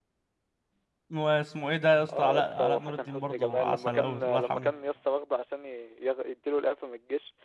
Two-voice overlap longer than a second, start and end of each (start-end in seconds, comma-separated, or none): 2.2-4.7